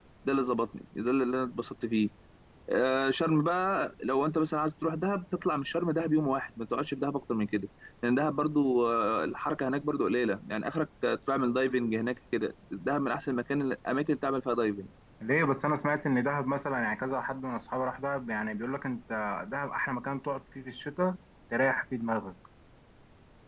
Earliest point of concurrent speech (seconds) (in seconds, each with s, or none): none